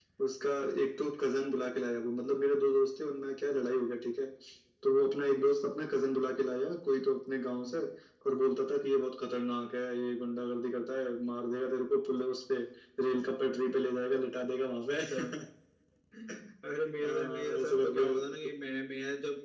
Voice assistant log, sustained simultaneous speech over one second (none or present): present